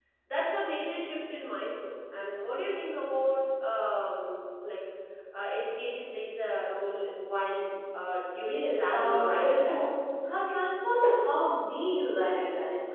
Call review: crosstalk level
present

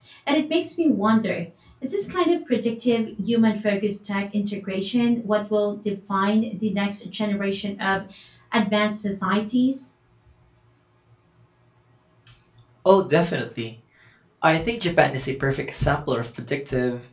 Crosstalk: none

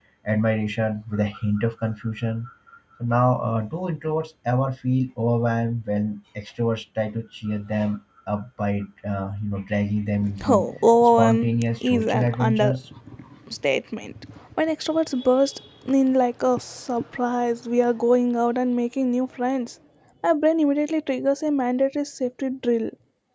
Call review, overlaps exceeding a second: present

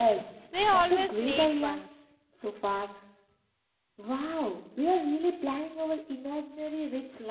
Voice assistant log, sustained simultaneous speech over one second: present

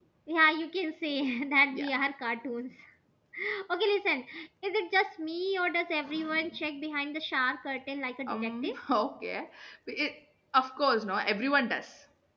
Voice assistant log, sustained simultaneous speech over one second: none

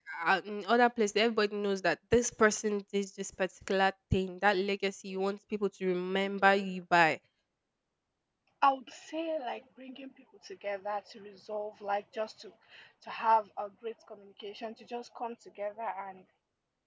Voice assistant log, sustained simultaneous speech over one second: none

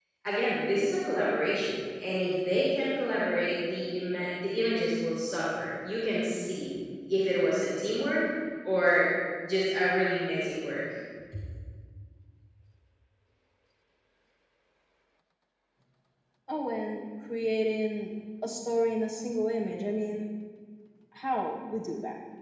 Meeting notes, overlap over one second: none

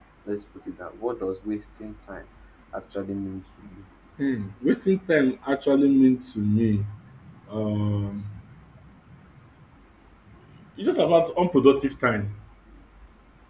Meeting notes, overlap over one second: none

